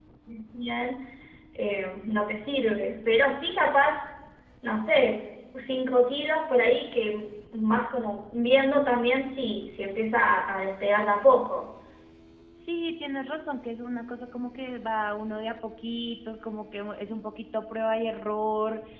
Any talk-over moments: No

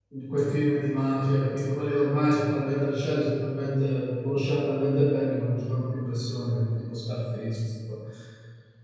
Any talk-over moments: No

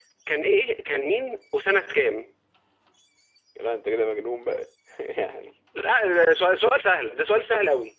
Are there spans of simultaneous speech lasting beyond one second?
No

